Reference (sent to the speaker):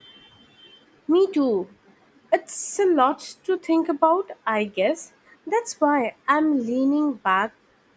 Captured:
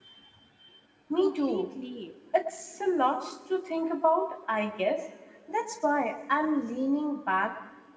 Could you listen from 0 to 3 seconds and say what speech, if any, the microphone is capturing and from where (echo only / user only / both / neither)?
both